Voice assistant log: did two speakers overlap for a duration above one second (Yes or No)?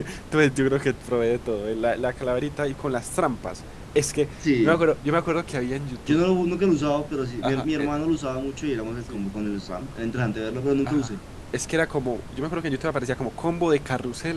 No